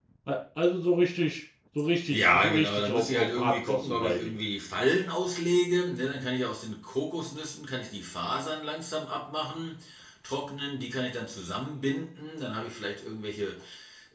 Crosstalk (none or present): present